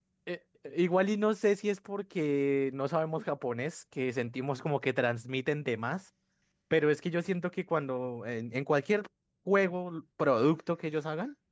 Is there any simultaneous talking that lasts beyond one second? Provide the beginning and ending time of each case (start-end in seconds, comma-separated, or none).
none